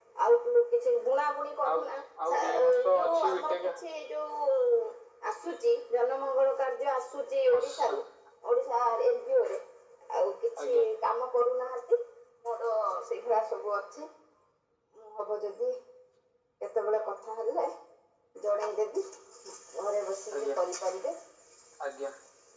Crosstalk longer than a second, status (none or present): present